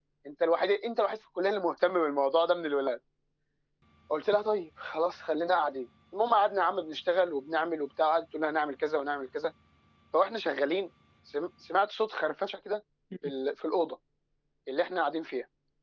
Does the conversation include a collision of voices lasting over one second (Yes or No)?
No